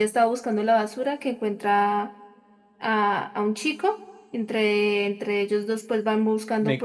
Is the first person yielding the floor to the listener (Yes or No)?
Yes